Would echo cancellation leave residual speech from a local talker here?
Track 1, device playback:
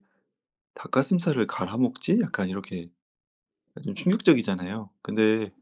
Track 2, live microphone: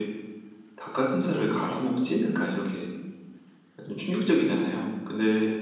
No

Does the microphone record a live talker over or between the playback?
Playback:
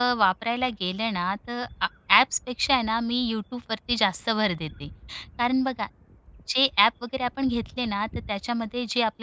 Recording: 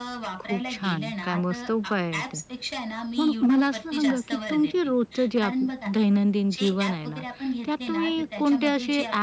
Yes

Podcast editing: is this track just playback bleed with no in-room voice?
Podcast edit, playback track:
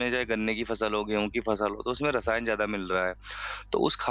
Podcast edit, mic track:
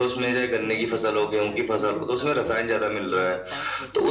No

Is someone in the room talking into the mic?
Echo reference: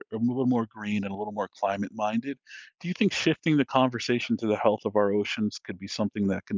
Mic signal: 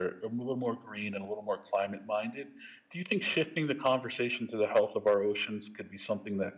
No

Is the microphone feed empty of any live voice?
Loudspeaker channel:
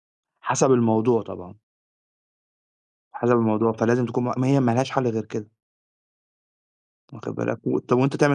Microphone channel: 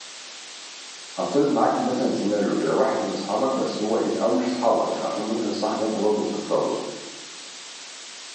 No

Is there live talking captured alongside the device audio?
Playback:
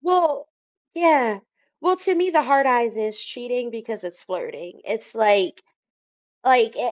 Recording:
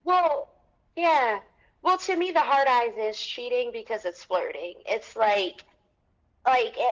No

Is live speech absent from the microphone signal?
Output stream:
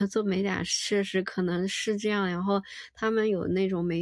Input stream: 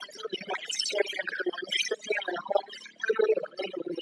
Yes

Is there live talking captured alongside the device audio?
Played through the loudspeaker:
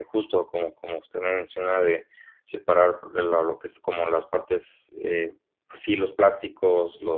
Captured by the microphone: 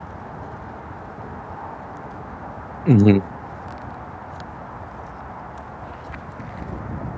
Yes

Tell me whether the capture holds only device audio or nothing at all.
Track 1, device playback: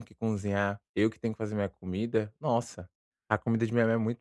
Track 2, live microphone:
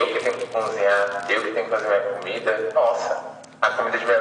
Yes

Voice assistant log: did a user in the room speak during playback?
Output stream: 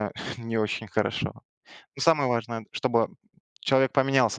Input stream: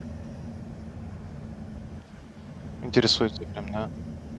Yes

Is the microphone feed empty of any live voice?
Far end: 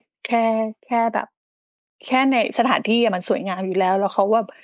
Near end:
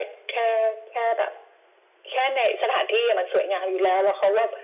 Yes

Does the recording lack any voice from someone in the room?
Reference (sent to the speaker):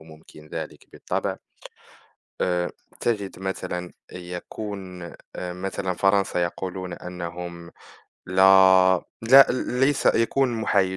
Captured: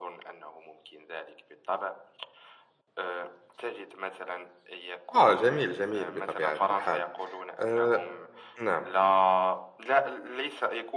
No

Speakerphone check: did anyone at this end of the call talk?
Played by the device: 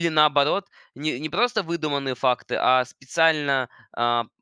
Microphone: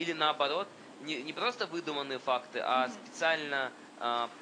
Yes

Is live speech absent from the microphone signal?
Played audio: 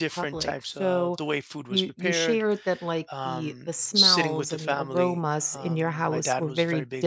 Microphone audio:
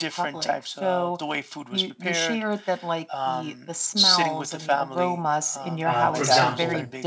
No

